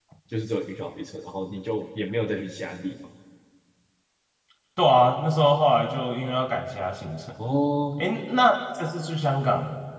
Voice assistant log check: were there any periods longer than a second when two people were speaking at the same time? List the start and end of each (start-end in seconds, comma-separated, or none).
none